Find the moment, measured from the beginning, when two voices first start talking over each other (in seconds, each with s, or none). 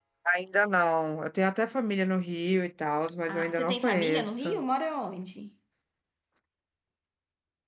3.3 s